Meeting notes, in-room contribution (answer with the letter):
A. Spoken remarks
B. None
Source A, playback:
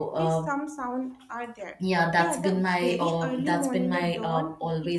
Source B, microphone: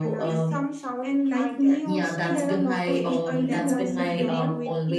A